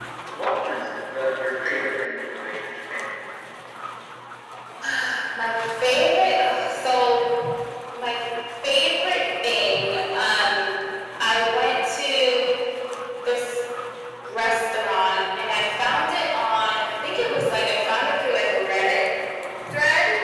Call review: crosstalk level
none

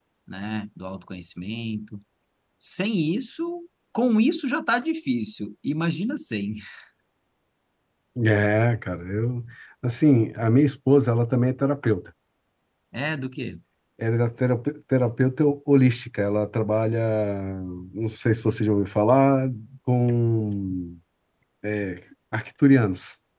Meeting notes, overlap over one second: none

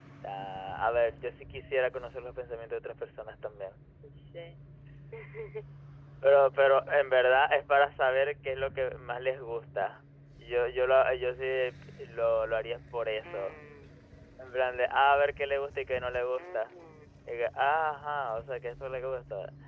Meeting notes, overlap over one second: none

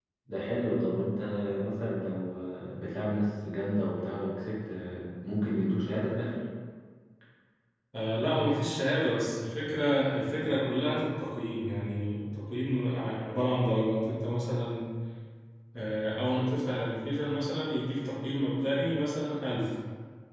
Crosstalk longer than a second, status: none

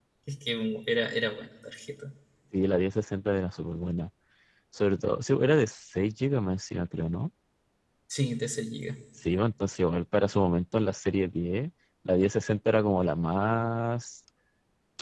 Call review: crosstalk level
none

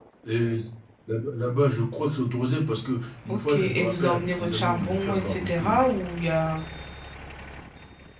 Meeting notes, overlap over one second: present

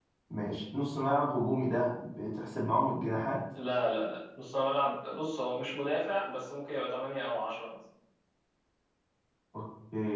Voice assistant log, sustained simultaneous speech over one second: none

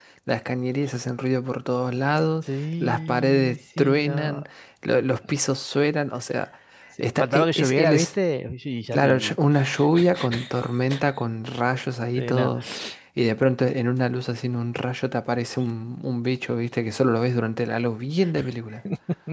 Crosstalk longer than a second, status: present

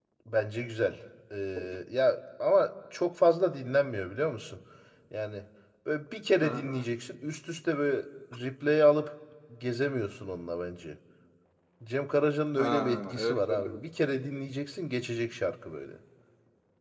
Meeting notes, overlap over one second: present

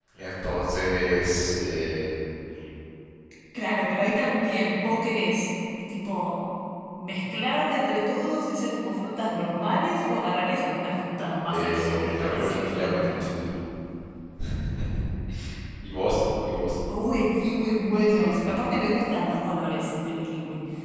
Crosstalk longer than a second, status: present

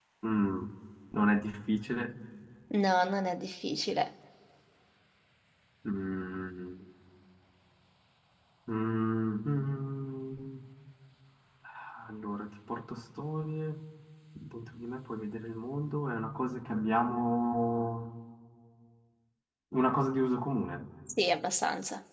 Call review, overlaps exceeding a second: none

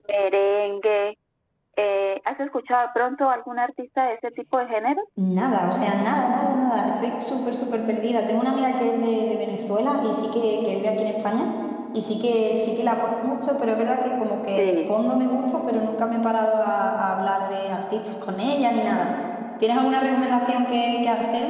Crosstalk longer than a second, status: none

